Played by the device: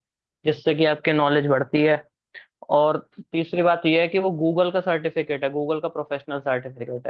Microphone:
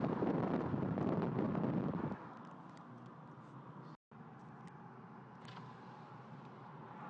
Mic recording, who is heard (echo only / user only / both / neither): neither